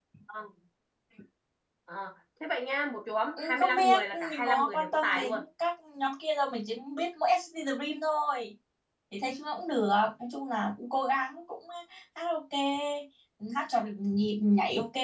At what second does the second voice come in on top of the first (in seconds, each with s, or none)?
3.4 s